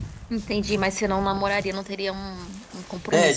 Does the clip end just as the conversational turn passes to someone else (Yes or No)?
Yes